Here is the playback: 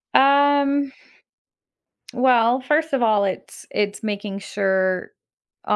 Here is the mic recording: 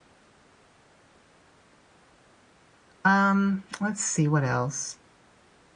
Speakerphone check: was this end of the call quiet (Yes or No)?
No